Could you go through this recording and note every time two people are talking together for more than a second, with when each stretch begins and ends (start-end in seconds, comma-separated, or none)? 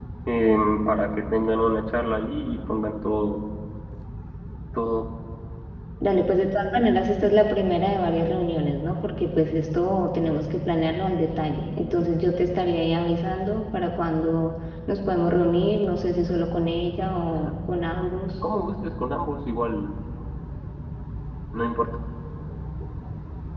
none